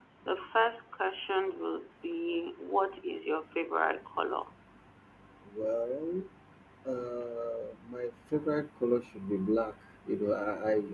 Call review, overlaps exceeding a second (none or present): none